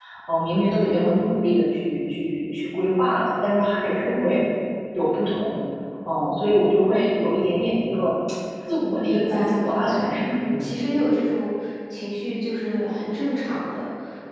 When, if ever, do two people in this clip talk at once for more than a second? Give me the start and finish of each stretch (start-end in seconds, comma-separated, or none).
9.0-10.8